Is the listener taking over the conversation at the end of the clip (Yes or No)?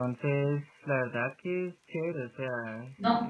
Yes